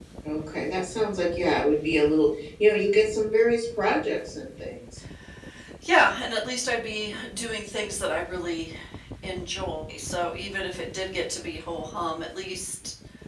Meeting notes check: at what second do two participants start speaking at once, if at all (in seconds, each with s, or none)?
none